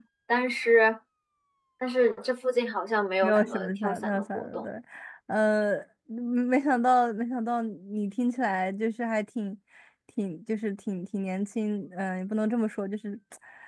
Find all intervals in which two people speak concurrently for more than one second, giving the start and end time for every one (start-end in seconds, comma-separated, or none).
3.2-4.7